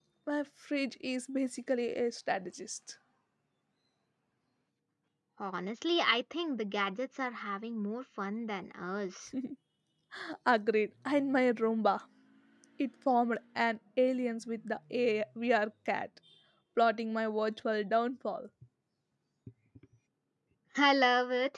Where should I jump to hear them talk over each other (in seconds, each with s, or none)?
none